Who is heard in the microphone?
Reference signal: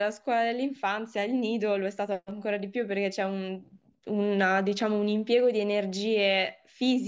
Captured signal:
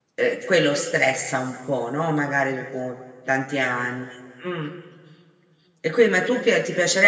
user only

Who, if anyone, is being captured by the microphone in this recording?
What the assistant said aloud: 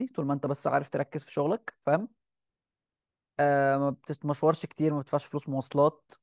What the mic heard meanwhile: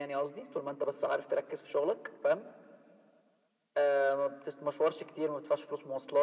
echo only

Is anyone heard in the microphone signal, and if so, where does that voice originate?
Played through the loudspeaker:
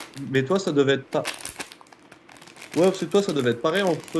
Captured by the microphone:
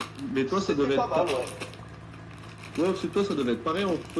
both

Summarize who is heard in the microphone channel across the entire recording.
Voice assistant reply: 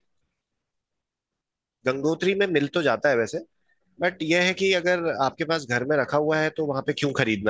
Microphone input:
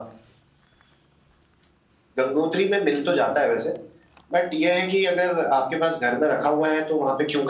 echo only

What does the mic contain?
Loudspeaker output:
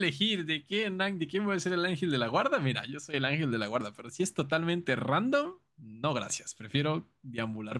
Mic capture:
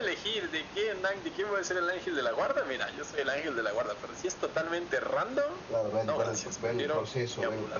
both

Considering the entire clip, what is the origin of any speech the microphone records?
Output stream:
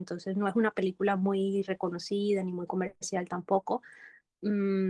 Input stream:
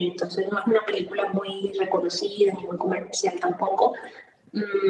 echo only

